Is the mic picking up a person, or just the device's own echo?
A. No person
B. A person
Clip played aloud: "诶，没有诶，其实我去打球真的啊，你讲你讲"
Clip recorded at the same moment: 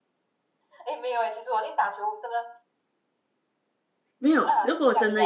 B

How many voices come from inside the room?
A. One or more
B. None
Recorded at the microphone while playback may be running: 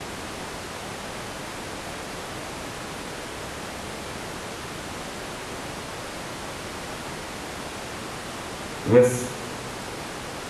A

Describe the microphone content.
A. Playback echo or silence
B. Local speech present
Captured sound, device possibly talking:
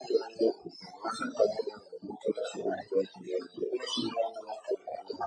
A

